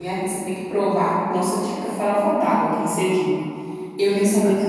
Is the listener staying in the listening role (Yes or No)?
No